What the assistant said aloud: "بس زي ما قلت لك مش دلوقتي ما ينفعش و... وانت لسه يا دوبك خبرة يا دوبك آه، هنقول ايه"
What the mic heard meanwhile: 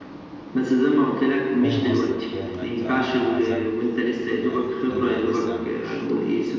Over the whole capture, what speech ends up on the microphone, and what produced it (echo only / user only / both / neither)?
both